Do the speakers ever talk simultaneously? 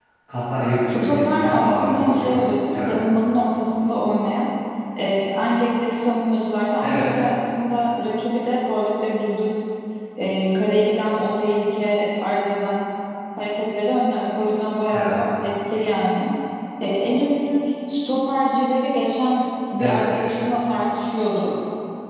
Yes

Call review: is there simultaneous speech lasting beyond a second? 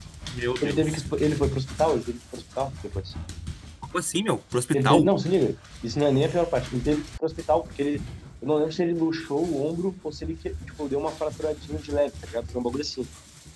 No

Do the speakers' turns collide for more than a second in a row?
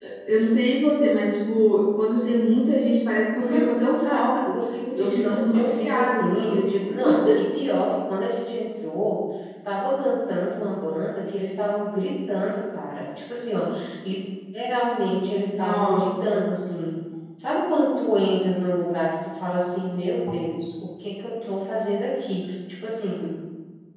Yes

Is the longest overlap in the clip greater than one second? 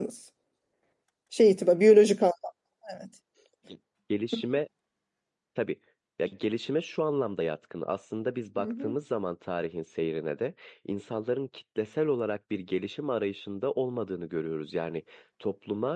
No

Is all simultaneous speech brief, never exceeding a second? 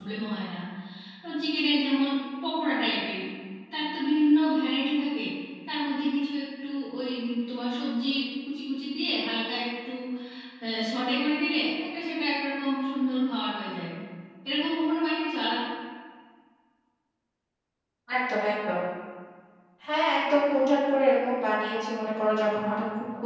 Yes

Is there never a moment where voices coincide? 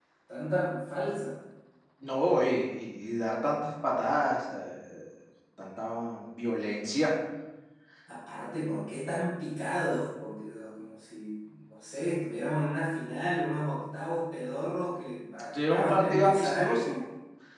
No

